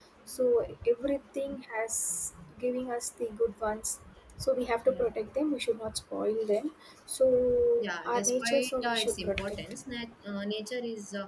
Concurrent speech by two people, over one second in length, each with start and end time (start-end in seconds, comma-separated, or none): 7.8-9.7